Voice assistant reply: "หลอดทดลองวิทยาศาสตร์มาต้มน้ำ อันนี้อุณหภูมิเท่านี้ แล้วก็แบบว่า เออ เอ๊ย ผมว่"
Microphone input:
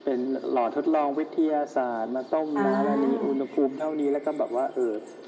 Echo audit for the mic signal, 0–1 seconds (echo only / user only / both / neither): echo only